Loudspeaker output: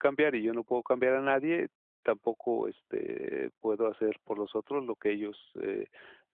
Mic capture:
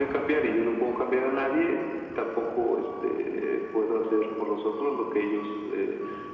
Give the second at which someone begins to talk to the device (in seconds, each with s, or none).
none